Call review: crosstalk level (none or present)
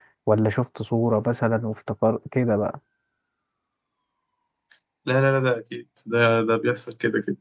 none